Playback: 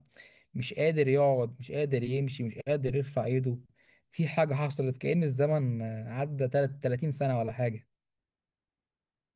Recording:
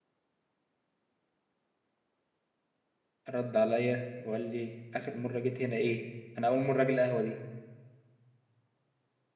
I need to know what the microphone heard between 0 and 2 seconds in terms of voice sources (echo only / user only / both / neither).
neither